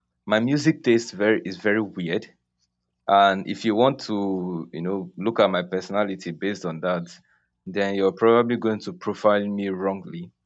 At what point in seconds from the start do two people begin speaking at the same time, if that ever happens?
none

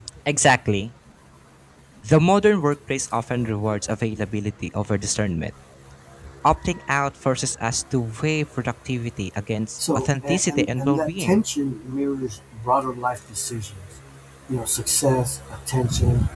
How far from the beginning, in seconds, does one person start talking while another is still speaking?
10 s

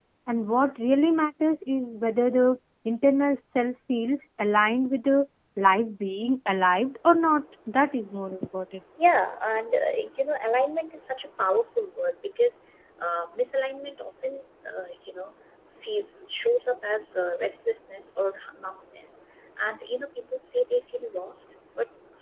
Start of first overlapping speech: none

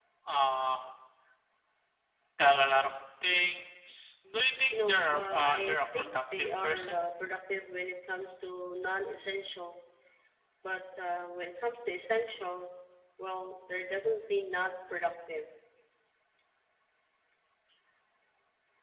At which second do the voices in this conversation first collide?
5 s

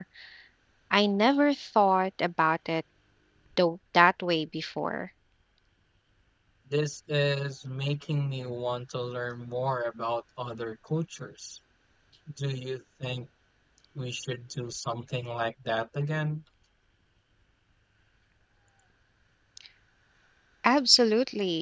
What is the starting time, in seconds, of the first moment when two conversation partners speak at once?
none

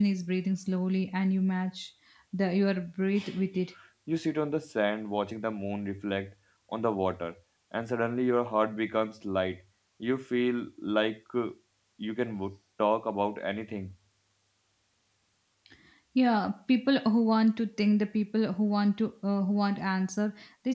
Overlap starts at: none

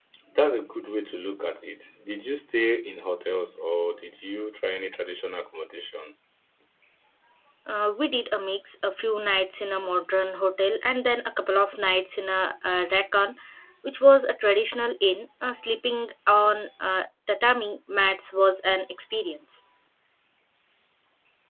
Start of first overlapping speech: none

